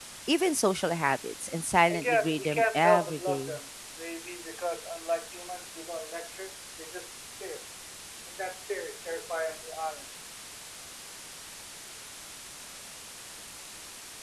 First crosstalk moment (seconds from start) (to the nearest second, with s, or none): 2 s